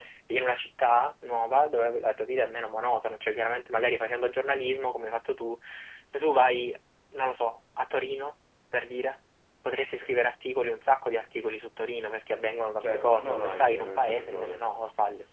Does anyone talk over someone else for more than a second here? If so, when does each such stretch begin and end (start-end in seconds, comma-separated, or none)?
12.8-14.5